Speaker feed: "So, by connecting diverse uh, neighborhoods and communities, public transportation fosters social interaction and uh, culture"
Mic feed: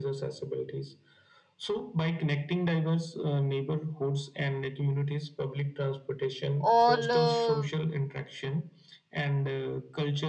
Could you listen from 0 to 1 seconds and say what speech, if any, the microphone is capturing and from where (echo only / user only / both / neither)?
echo only